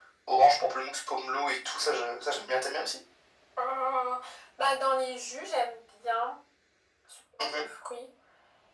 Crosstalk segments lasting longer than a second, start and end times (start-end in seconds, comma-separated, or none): none